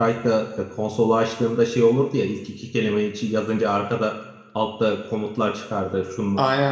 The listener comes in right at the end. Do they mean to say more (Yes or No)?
No